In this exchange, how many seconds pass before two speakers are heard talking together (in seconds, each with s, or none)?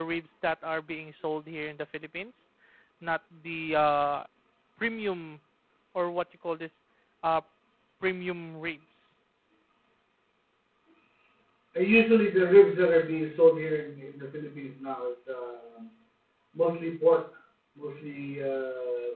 none